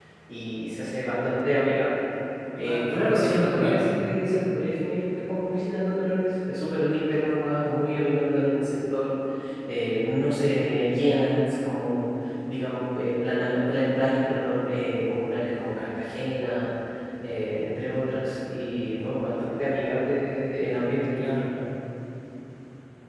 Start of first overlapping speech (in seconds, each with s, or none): 2.6 s